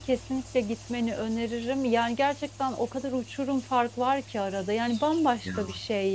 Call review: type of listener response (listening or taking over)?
listening